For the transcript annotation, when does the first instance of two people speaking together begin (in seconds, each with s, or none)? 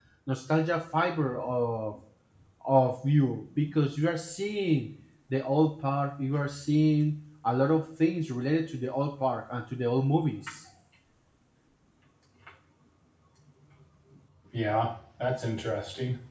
none